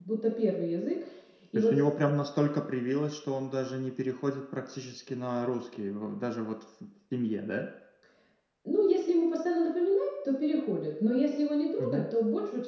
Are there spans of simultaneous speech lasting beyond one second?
No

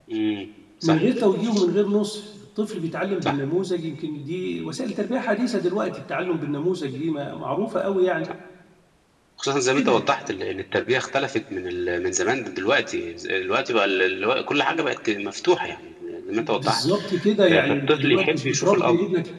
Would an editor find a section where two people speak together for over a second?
Yes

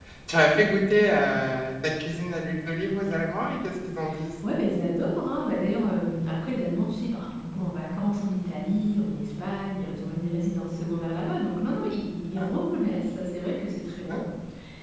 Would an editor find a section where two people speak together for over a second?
No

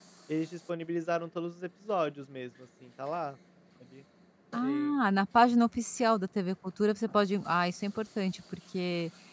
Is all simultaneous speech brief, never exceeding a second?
Yes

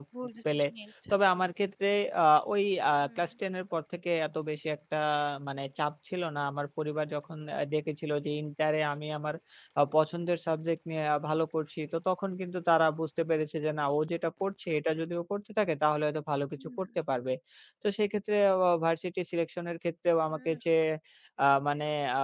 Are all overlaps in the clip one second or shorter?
Yes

